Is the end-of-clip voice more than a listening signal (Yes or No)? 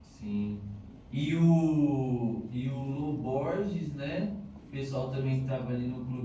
No